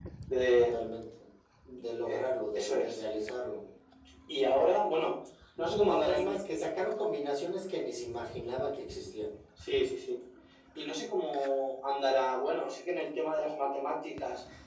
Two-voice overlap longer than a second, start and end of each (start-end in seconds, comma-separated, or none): 1.8-3.0